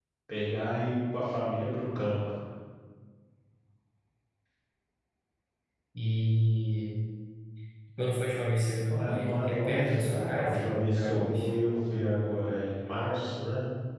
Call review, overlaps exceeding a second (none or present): present